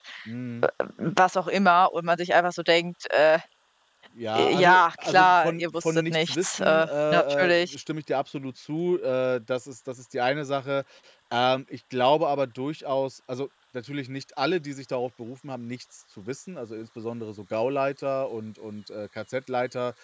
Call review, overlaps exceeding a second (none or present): present